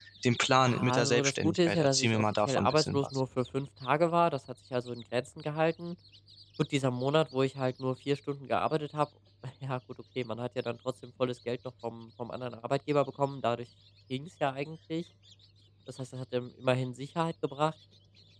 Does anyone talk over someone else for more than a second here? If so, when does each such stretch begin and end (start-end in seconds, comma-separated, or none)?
0.6-3.2